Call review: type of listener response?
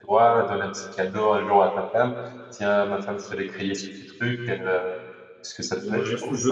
taking over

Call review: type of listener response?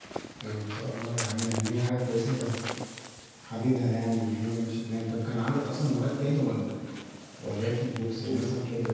listening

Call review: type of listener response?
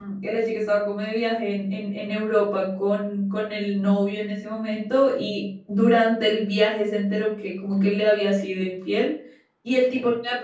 listening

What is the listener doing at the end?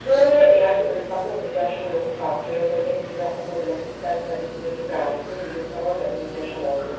taking over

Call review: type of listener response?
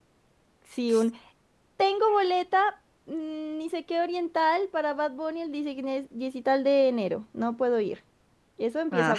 taking over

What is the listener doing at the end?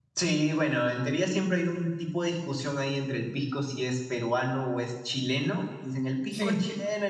listening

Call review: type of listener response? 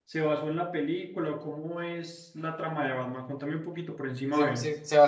taking over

